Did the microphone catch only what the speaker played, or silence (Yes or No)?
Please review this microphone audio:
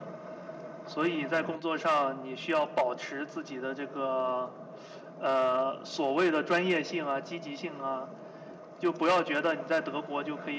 Yes